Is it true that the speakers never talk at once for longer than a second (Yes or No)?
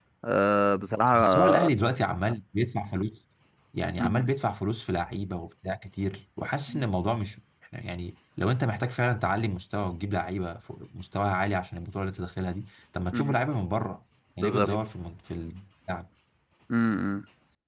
Yes